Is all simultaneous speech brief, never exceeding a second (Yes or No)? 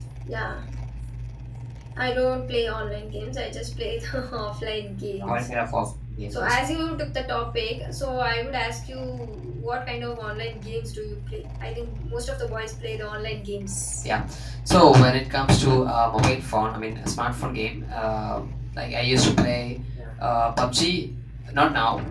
Yes